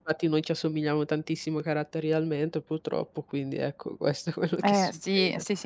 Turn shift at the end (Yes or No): Yes